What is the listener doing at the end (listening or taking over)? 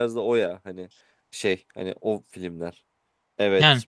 listening